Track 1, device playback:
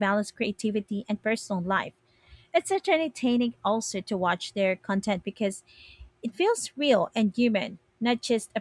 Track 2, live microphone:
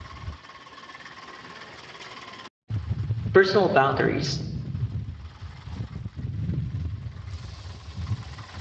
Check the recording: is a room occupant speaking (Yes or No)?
Yes